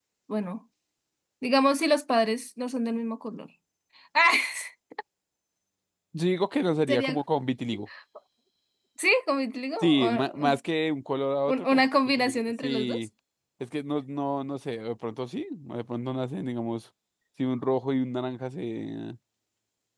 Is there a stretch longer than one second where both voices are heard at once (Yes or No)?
Yes